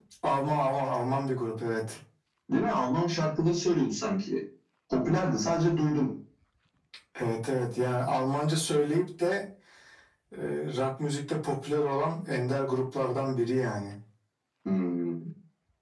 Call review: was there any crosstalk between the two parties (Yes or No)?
No